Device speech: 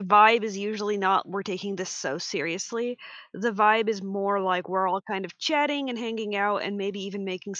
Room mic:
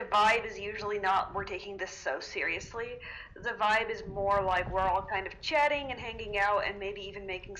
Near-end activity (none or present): none